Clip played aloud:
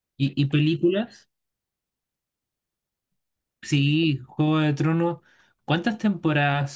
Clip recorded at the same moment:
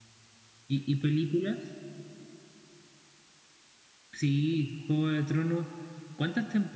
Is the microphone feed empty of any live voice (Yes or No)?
Yes